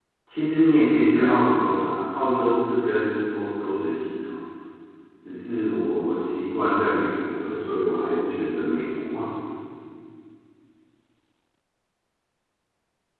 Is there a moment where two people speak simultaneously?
No

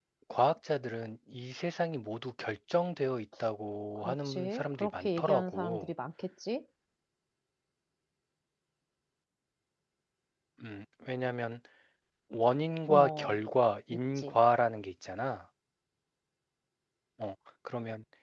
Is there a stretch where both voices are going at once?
Yes, from 4.0 s

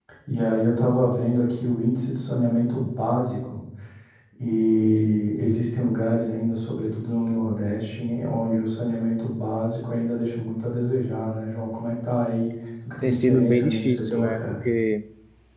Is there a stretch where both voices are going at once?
Yes, from 13.0 s

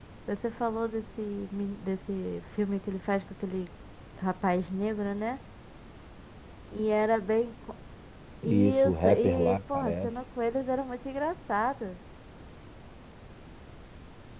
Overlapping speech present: Yes, from 8.4 s

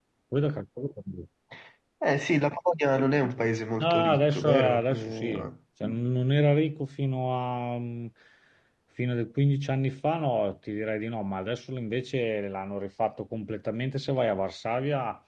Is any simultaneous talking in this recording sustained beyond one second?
Yes, from 3.8 s

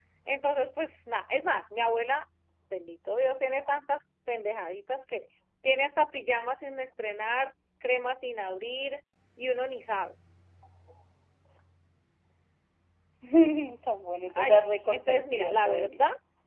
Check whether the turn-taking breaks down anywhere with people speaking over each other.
Yes, from 14.4 s

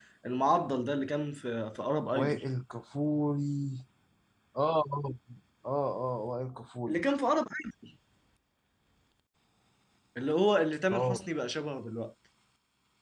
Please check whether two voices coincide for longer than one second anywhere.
No

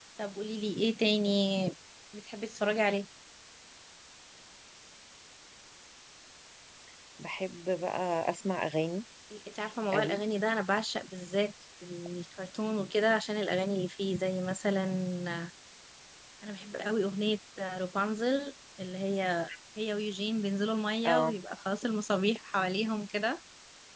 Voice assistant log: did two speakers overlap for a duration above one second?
No

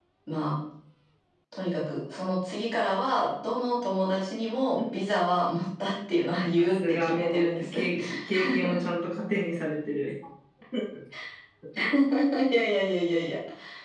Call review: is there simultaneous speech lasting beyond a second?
Yes, from 6.6 s

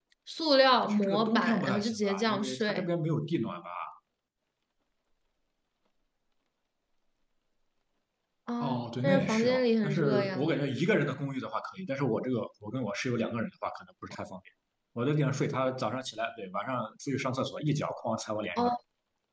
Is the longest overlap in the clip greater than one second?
Yes, from 0.8 s

